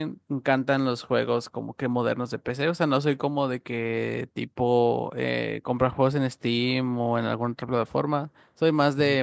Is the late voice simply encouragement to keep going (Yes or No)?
Yes